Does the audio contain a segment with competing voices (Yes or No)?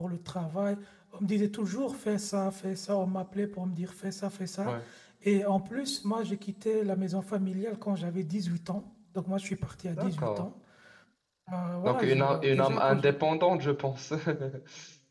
Yes